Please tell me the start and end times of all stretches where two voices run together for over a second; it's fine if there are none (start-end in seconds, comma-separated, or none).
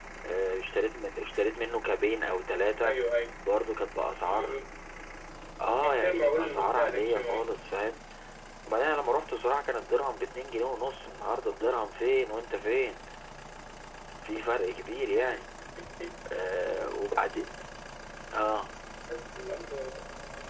5.8-7.5